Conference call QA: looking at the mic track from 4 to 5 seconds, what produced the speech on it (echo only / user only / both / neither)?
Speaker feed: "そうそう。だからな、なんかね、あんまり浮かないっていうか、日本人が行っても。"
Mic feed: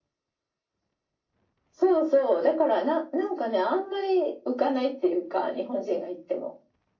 echo only